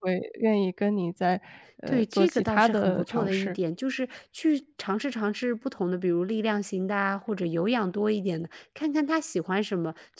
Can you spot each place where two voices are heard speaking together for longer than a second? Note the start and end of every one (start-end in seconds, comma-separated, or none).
1.9-3.6